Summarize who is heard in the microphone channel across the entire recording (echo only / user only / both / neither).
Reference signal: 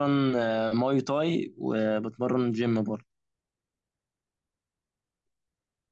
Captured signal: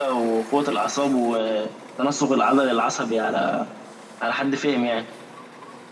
user only